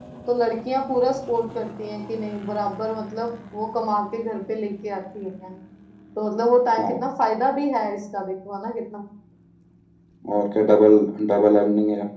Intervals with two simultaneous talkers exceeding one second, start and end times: none

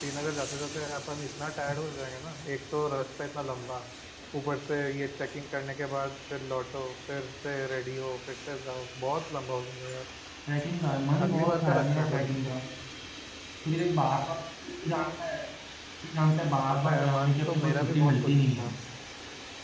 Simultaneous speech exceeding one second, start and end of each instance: 11.2-12.6, 16.7-18.7

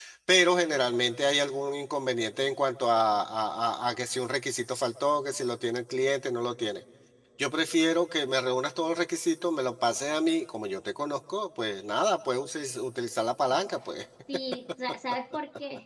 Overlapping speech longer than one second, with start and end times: none

